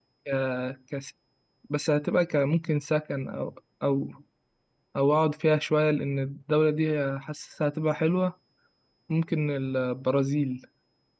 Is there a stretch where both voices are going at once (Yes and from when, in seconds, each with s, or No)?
No